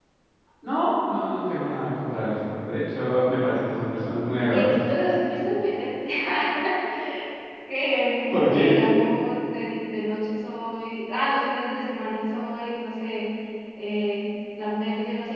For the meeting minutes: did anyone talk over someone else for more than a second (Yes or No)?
No